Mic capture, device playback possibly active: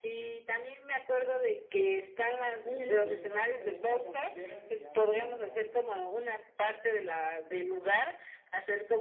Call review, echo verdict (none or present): present